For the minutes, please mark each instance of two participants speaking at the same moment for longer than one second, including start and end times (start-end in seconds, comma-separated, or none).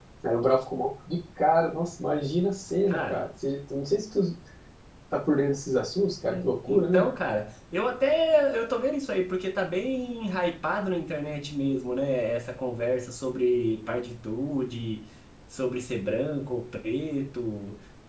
none